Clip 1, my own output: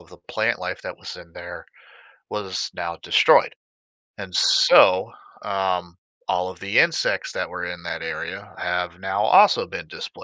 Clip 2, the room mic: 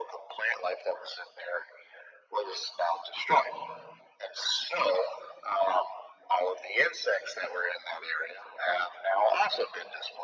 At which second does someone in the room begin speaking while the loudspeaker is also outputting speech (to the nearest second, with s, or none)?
none